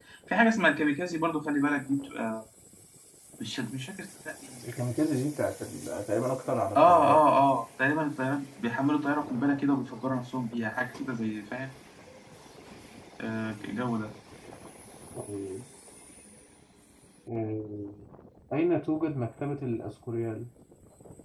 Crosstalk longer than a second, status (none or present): none